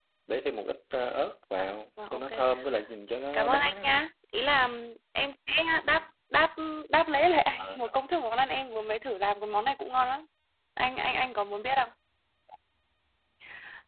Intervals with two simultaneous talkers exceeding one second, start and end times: none

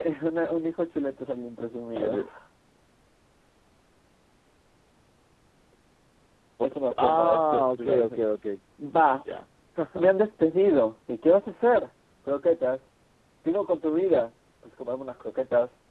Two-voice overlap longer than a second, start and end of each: 6.6-8.1

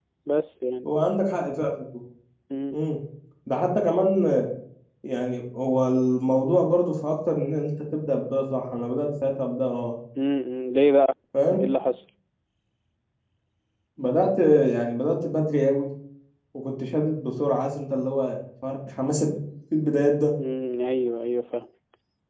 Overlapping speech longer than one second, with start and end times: none

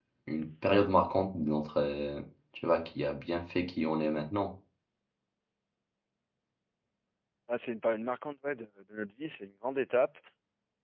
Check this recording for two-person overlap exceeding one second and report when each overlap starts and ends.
none

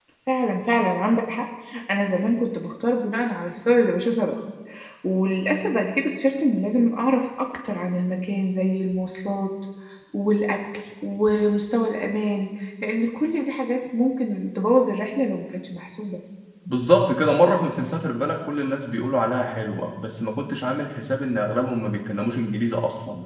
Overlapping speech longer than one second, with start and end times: none

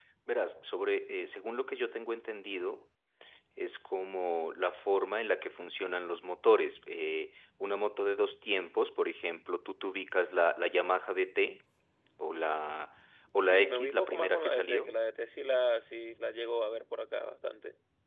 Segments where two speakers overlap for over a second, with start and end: 13.4-14.9

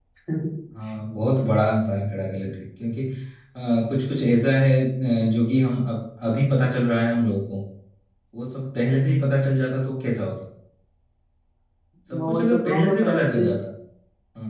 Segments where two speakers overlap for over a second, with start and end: 12.2-13.5

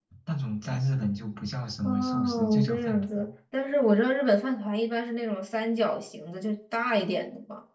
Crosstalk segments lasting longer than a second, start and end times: 1.8-3.3

